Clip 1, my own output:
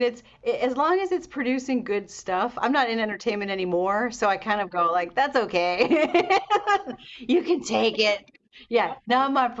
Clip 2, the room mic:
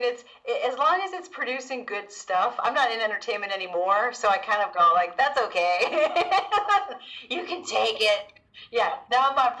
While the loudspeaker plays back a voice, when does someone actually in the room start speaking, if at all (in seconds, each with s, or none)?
none